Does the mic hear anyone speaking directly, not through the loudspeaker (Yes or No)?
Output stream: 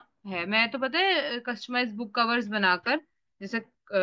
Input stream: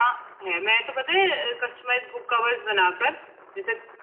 No